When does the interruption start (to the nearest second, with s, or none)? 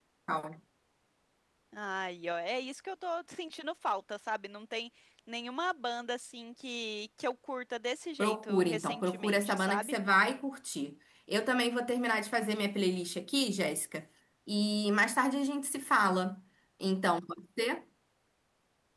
8 s